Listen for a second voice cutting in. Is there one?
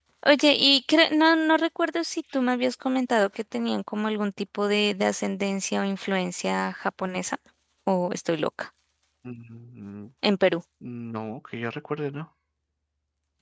No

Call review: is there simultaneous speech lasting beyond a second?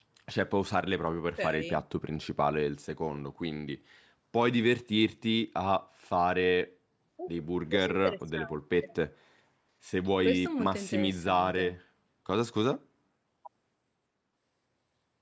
Yes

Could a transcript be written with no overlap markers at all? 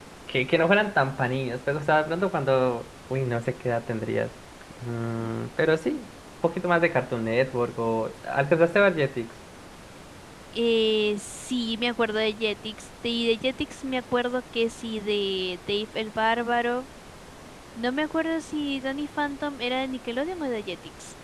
Yes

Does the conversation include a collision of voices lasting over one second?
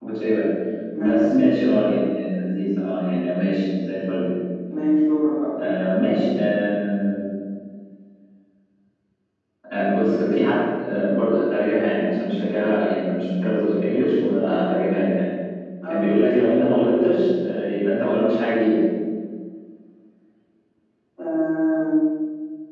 No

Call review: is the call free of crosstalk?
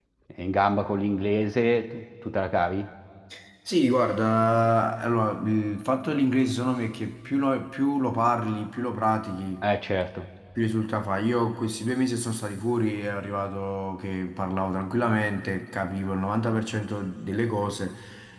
Yes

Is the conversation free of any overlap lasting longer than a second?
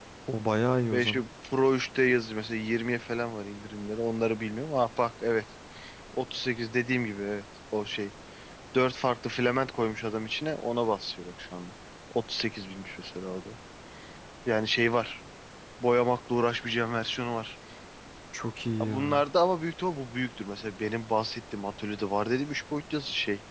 Yes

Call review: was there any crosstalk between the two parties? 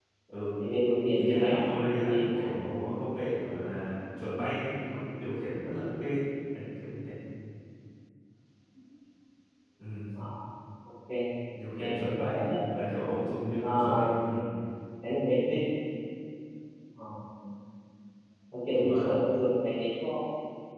Yes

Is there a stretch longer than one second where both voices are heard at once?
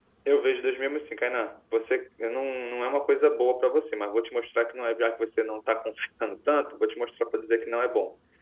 No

